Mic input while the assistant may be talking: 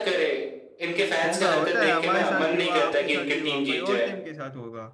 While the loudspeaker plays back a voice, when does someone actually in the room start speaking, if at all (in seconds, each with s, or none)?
1.2 s